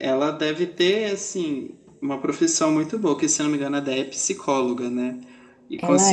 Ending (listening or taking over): listening